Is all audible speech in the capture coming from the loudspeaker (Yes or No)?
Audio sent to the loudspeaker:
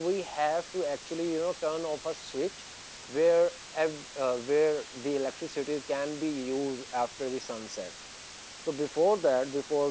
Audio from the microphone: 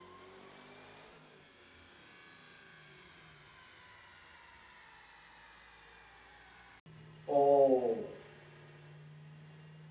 No